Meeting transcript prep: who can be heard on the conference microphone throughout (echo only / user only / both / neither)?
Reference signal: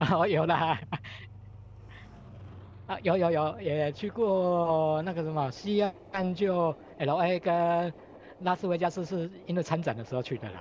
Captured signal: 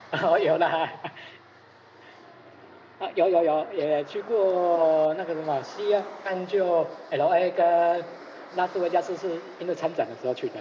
echo only